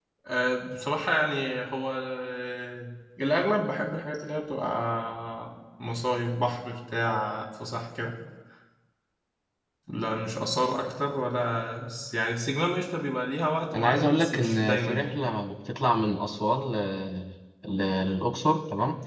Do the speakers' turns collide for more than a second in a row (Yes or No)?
Yes